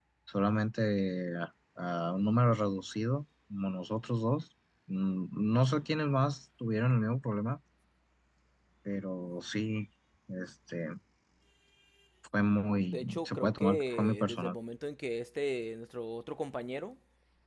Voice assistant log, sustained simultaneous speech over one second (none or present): present